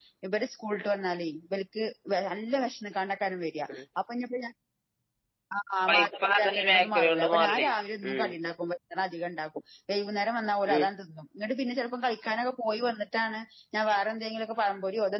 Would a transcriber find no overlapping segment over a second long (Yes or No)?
No